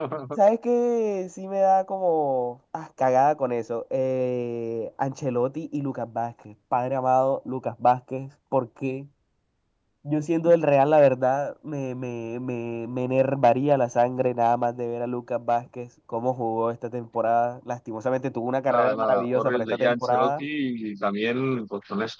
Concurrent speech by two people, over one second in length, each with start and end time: 18.7-20.4

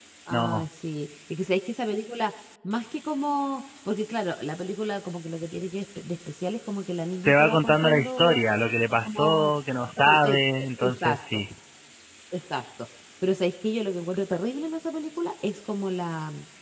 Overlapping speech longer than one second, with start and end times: 7.2-8.4, 10.1-11.5

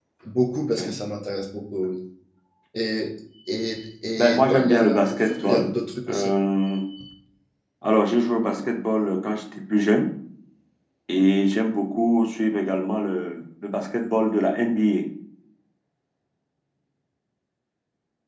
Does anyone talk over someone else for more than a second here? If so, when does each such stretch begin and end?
4.3-5.7

